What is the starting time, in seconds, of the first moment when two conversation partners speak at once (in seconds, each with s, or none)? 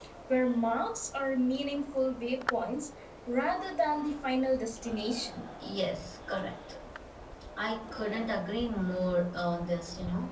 none